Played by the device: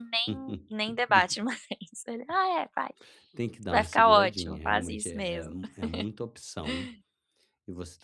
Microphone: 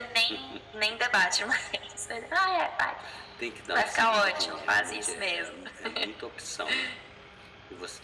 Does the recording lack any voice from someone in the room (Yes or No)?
Yes